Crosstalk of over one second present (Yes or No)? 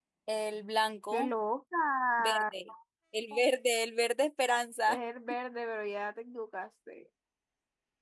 No